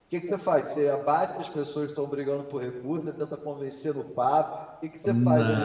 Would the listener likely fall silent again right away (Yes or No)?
Yes